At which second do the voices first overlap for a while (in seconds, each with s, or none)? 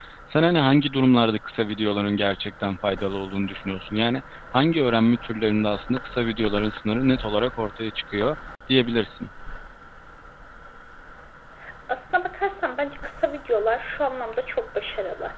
none